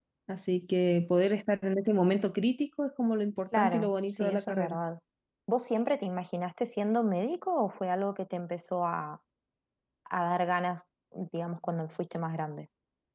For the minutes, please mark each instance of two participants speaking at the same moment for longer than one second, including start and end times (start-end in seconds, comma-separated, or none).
3.5-4.8